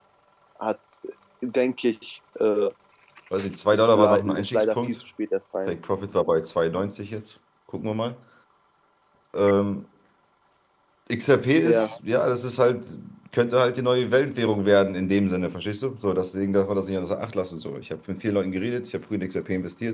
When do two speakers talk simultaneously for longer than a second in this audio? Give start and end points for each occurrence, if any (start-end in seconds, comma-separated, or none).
3.7-5.0